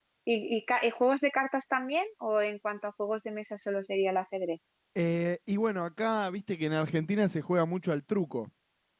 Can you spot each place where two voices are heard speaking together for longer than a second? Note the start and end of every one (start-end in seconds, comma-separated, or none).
none